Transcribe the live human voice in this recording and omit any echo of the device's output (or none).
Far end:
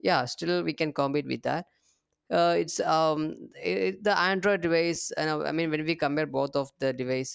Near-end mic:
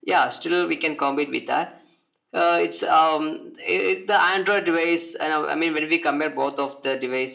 none